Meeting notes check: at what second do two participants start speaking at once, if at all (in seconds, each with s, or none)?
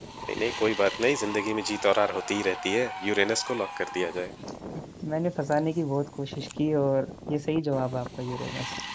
none